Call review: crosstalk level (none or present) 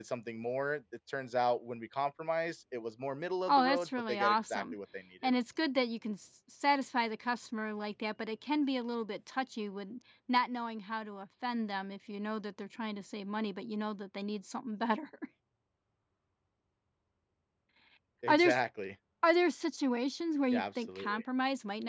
present